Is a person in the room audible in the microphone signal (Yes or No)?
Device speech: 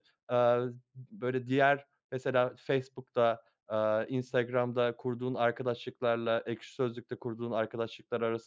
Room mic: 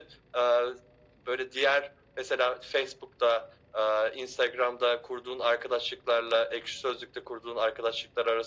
No